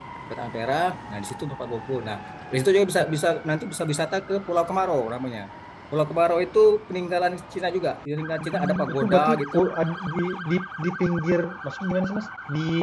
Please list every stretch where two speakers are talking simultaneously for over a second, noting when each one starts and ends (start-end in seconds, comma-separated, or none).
8.4-9.7